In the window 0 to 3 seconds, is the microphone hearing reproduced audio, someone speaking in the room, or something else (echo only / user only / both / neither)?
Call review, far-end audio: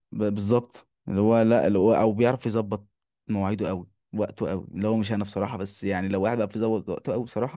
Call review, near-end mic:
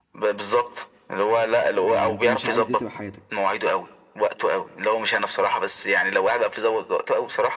both